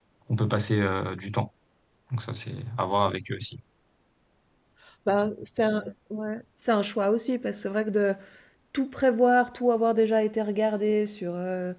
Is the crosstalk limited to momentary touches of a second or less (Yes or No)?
Yes